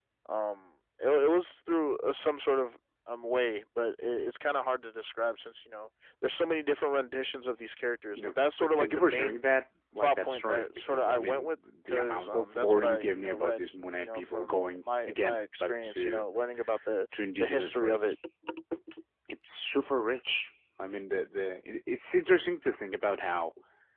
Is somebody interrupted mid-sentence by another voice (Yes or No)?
Yes